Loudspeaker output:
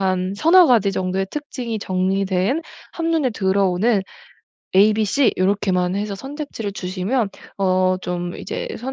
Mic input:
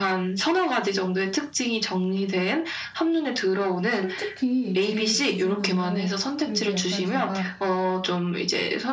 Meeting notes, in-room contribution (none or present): present